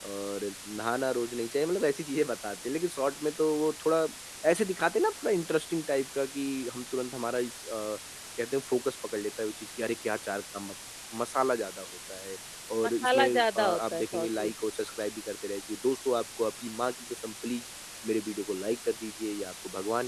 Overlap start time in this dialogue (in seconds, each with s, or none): 12.8 s